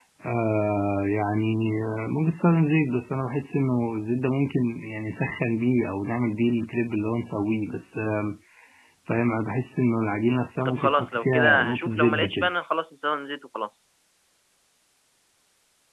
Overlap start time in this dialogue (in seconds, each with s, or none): 10.6 s